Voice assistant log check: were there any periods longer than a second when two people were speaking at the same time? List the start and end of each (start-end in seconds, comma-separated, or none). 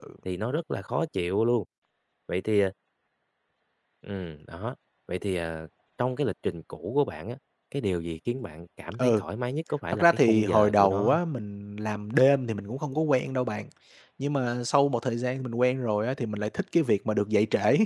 9.9-11.2